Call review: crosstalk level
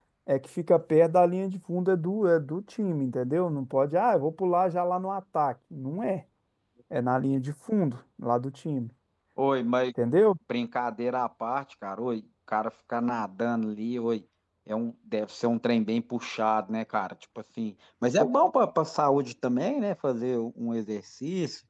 none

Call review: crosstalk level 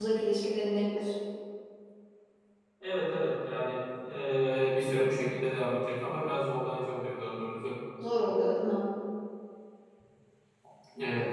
none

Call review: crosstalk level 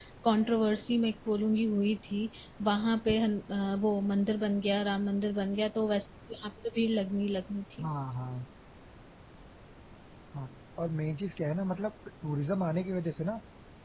none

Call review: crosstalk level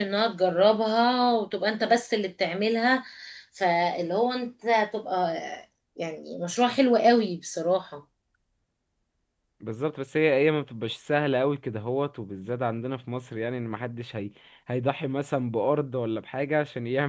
none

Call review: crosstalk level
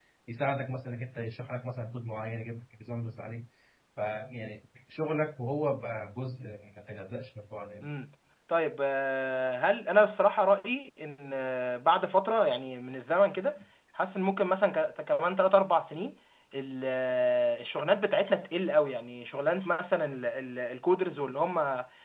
none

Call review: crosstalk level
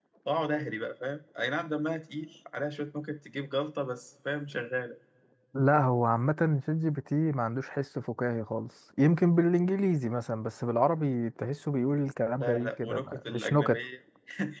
present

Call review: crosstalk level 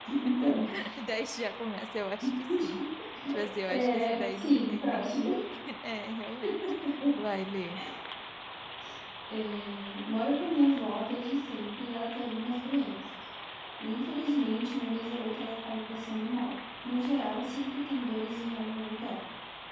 present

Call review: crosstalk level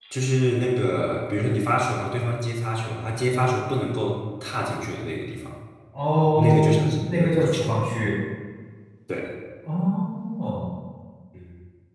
present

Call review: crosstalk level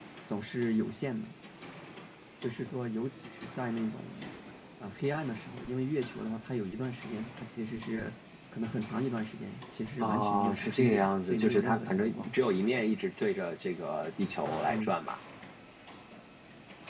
present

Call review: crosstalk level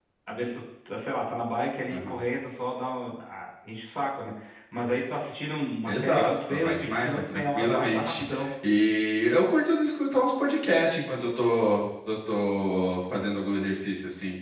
present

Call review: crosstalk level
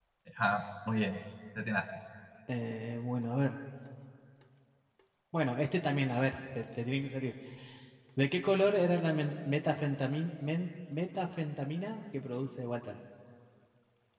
none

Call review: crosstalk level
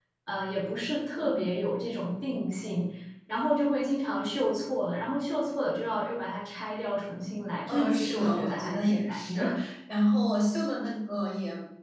present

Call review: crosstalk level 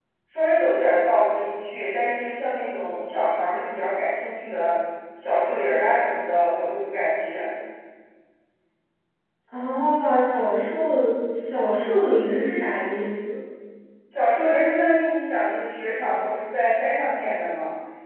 none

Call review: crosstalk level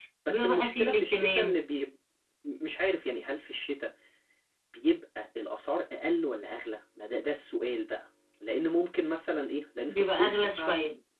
present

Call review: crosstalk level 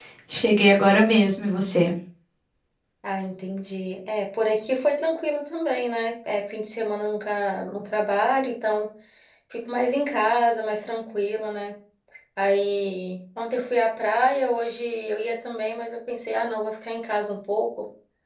none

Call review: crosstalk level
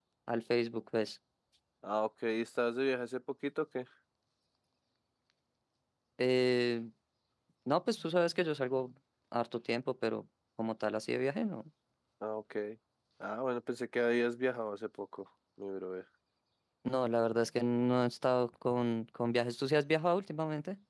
none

